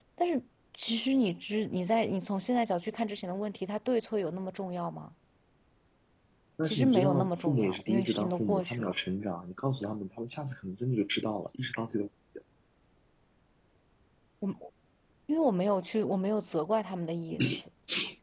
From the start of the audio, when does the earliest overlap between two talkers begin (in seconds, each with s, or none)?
6.6 s